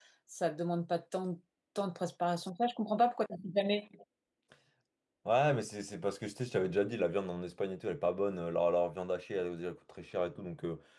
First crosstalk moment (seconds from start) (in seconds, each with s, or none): none